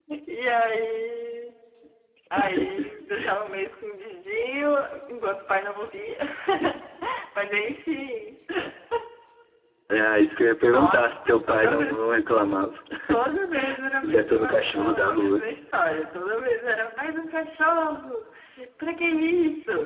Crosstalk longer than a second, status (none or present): present